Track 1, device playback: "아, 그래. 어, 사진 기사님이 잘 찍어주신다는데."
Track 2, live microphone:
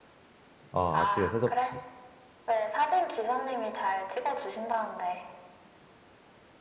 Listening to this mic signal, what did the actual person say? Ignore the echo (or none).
아 아침에 세 접시.